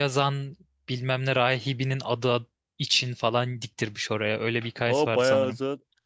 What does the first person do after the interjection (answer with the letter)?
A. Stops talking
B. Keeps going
A